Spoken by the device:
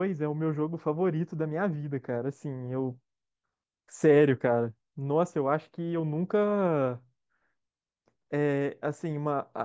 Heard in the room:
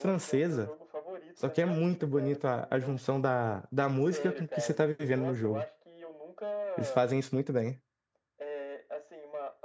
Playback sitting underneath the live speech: Yes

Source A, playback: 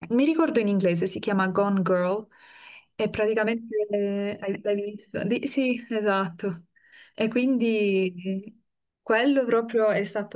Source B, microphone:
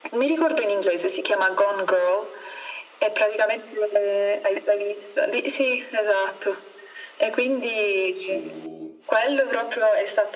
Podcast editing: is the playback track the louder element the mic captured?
Yes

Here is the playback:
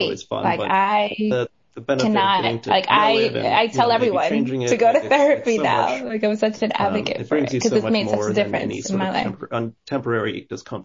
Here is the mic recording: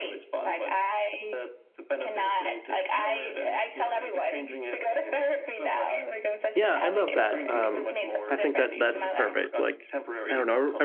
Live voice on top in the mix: Yes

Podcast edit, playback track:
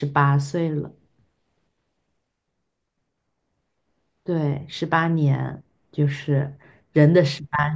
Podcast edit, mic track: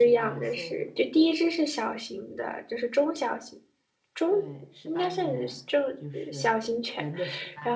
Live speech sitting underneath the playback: No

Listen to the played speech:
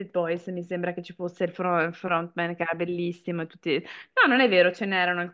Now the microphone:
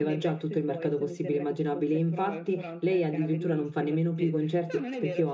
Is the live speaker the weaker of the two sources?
No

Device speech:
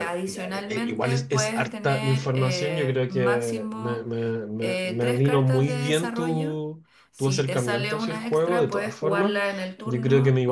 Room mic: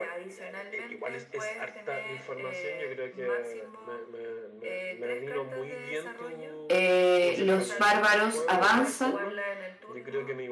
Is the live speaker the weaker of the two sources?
No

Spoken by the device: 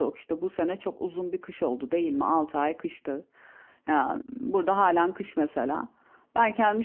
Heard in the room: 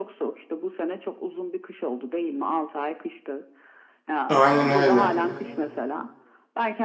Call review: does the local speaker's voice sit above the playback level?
Yes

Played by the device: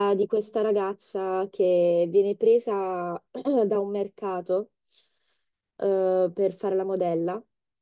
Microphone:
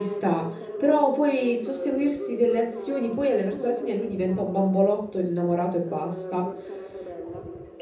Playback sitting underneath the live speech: Yes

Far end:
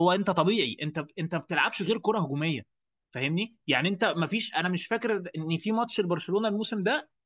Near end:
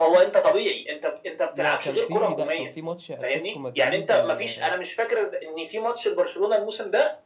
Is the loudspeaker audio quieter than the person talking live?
No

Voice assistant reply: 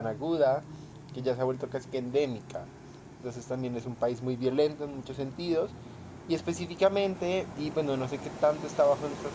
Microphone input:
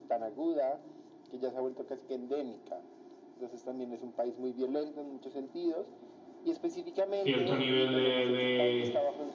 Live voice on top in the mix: Yes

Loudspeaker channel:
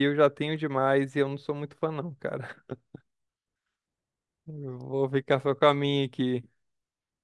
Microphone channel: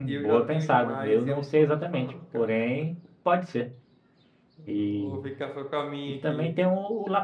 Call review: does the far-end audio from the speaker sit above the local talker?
No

